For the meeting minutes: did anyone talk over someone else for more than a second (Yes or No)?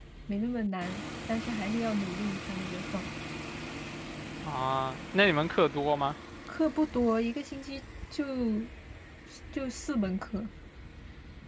No